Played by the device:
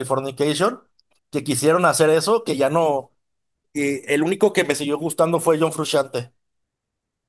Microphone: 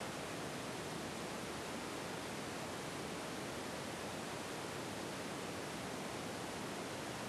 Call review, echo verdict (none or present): none